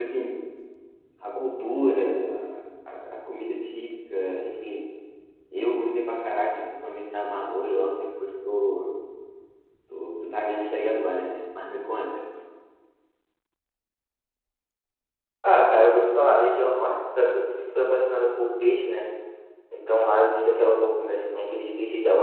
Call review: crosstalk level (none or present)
none